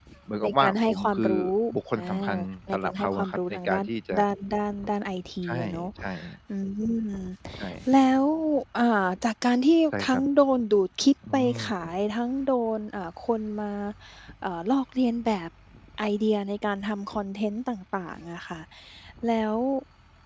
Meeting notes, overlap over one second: present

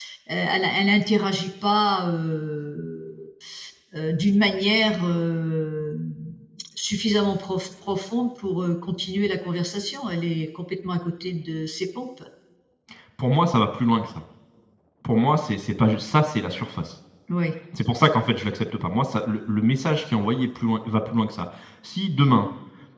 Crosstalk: none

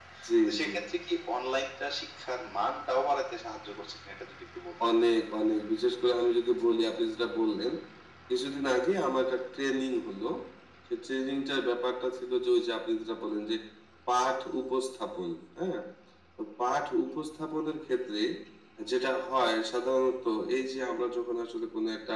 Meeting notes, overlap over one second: none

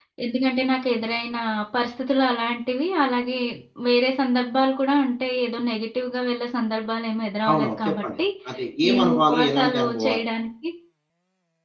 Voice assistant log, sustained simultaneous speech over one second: present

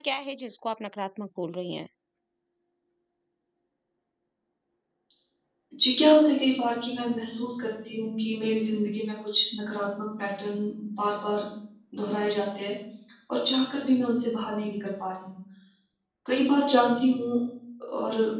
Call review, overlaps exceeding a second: none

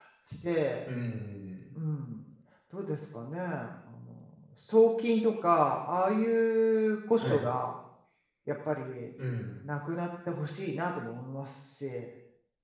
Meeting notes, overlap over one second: none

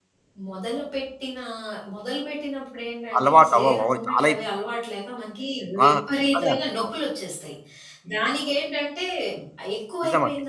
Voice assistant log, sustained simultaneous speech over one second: present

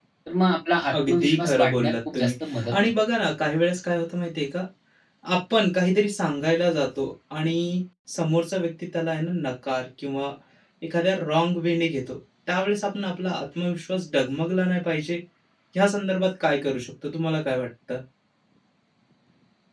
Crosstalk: present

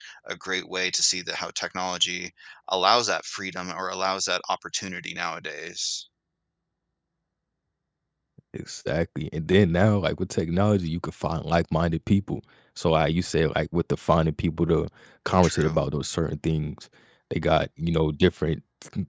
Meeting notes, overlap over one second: none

